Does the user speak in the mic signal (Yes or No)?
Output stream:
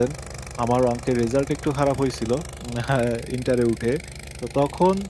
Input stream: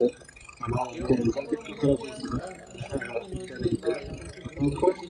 Yes